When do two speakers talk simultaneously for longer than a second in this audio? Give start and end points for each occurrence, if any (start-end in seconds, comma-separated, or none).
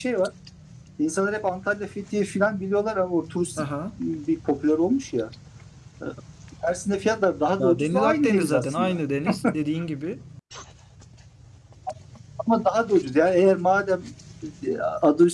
7.6-9.0